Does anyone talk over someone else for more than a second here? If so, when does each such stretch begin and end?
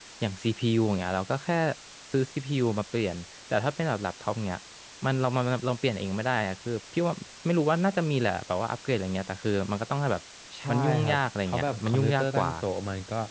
10.7-12.5

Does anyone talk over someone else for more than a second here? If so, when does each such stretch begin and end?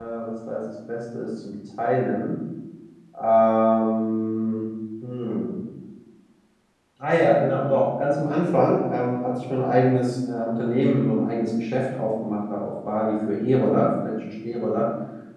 none

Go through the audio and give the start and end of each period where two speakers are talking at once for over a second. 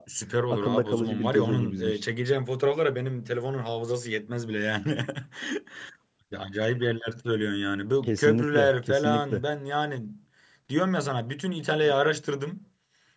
0.5-2.0, 8.0-9.4

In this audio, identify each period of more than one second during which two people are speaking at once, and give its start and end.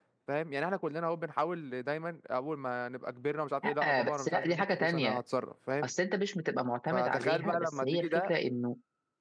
3.8-5.2, 6.9-8.3

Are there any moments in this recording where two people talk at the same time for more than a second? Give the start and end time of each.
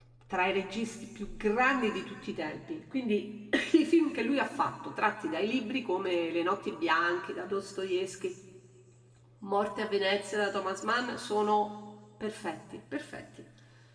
none

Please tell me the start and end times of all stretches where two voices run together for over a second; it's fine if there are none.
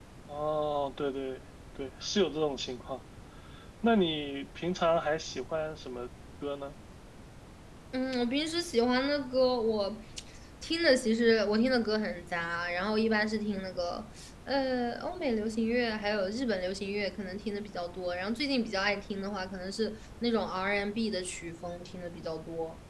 none

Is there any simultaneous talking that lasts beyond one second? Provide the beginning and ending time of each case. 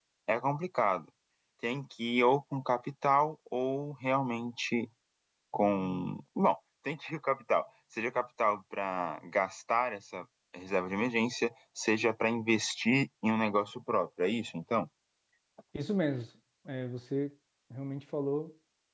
none

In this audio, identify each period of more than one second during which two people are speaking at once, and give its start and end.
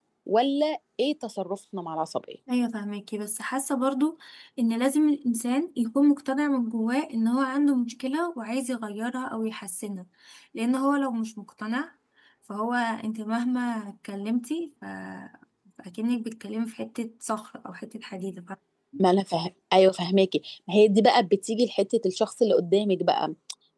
none

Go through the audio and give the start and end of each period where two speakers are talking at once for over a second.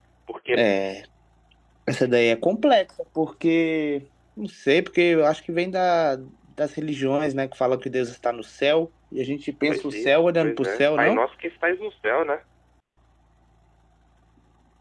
9.7-11.2

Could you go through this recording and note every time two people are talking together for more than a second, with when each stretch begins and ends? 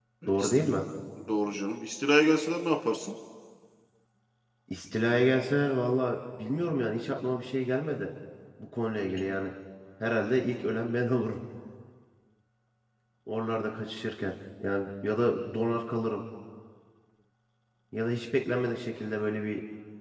none

